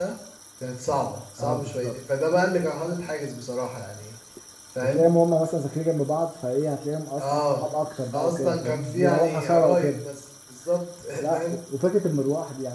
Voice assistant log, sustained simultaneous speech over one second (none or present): present